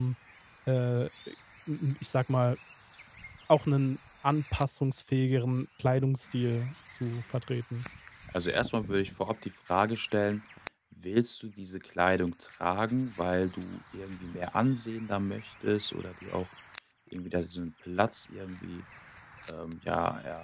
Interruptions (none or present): none